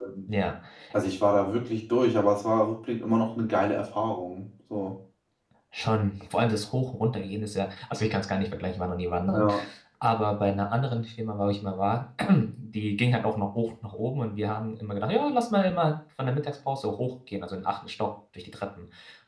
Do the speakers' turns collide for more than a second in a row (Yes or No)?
No